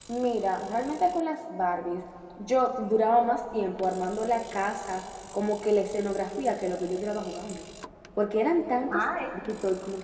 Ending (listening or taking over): listening